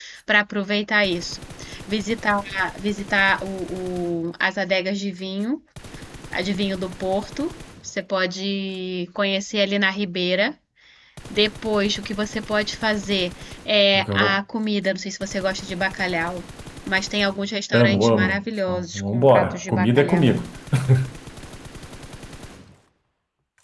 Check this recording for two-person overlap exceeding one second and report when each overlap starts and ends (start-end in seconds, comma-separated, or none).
17.7-20.4